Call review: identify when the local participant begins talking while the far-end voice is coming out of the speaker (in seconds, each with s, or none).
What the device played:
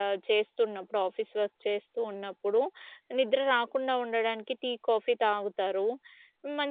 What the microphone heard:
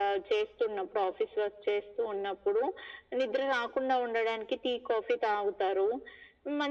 none